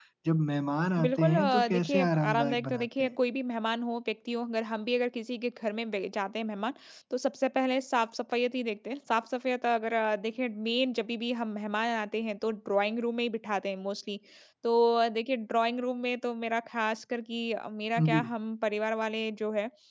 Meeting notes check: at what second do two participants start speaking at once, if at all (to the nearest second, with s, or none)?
1 s